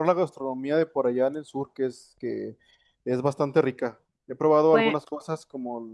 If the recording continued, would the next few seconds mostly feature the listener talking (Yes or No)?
No